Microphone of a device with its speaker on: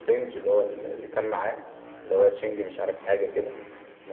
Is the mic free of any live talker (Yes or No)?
Yes